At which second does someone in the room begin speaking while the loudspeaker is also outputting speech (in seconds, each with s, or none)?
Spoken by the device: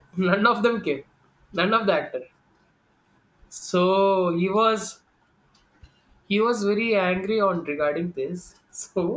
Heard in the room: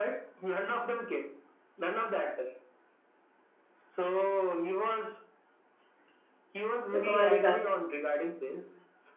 6.9 s